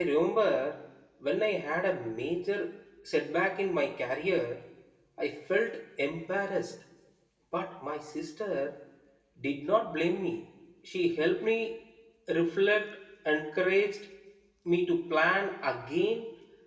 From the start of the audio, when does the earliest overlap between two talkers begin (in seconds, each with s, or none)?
none